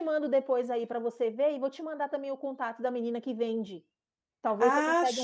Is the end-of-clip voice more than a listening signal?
Yes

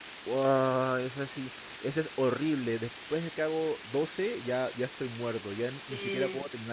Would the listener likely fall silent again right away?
No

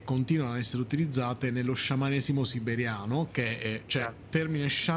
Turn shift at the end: No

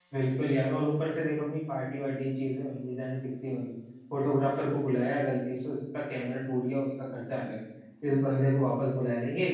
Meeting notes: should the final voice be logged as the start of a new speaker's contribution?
No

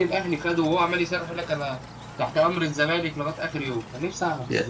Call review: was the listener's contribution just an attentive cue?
No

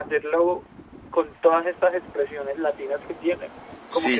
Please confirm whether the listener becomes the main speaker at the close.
Yes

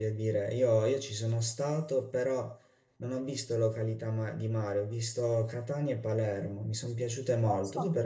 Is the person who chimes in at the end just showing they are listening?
Yes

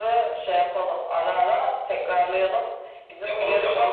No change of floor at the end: Yes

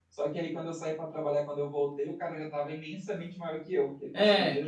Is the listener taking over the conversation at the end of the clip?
Yes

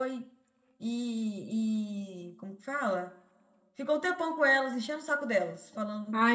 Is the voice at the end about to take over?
Yes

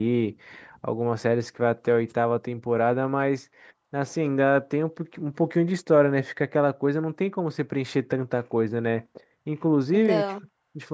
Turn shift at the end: No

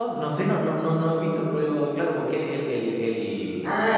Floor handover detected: Yes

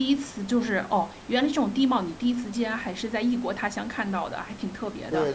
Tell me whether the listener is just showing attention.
No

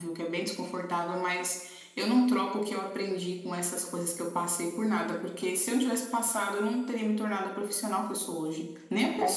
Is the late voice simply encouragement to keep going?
No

